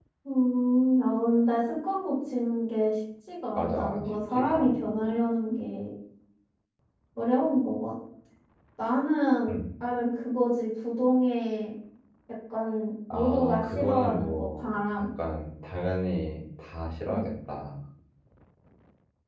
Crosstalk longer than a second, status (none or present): present